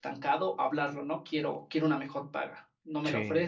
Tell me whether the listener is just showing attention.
Yes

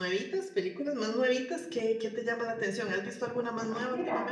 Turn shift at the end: Yes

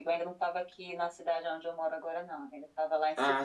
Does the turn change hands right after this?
No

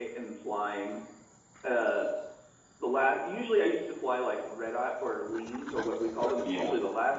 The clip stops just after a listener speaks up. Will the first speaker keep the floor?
Yes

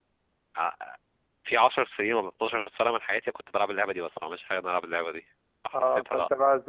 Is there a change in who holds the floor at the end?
Yes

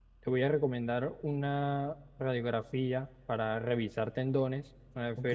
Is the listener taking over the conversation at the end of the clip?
No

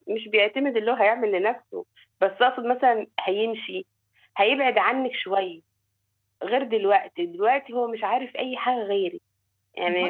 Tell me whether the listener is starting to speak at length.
Yes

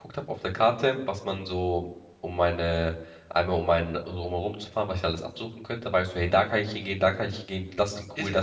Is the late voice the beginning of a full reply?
Yes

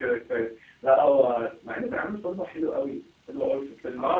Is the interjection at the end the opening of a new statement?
Yes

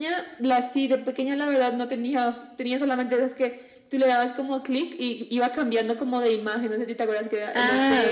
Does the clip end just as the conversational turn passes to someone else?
Yes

